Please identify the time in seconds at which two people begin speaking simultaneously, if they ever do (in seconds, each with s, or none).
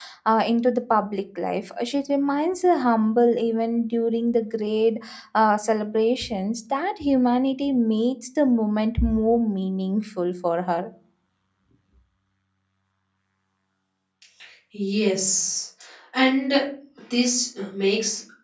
none